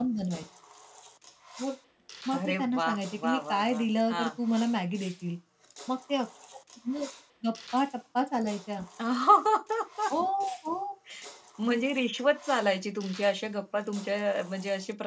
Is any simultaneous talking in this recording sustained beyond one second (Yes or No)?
Yes